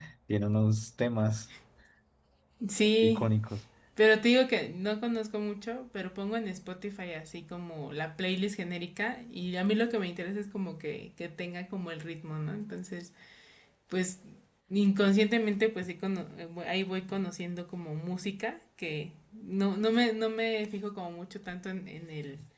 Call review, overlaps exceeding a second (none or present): none